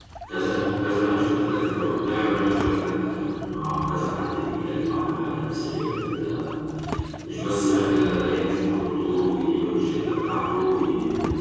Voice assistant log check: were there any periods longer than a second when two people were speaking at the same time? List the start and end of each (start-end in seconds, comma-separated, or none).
none